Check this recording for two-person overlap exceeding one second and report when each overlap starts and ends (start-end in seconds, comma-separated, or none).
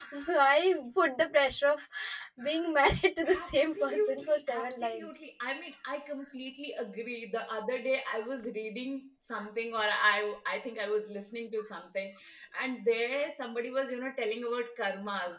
3.3-5.2